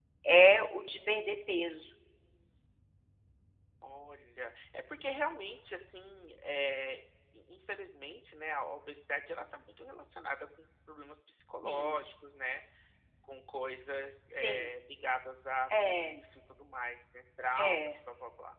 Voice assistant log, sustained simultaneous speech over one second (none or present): none